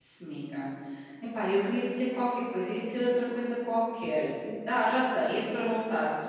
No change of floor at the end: Yes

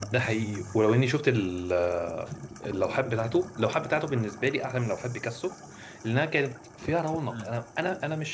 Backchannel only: Yes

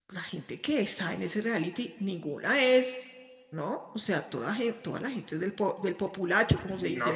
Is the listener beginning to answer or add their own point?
Yes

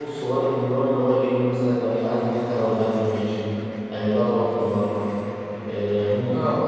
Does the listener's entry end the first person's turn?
No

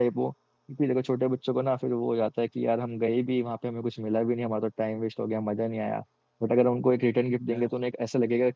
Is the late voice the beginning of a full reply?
No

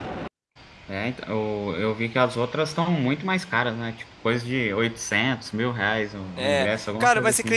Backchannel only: No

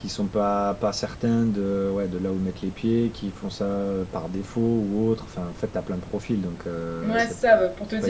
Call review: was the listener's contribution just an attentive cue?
No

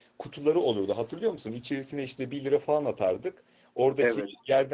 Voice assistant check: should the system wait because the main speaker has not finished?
Yes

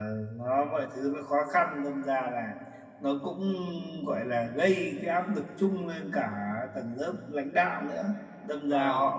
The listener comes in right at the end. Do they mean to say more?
No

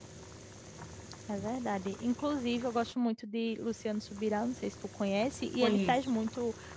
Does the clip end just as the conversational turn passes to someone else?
No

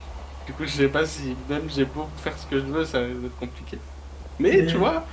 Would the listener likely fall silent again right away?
Yes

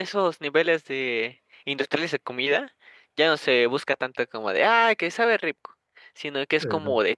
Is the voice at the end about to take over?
No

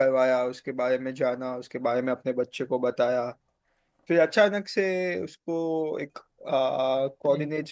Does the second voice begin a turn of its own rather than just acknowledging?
No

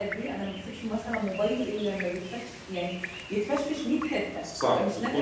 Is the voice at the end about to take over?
Yes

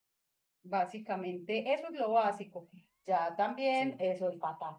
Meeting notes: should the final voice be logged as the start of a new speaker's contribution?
No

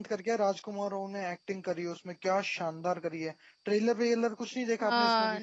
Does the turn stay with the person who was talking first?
No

